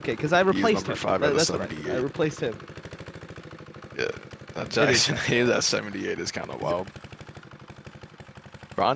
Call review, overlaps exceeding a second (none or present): present